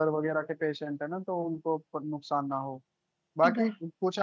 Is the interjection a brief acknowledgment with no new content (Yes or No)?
Yes